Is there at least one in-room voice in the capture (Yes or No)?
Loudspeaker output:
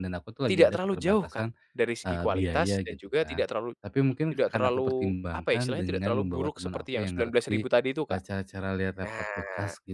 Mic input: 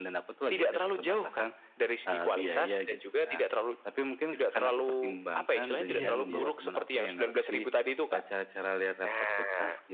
Yes